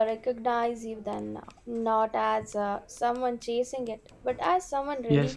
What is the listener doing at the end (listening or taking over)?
taking over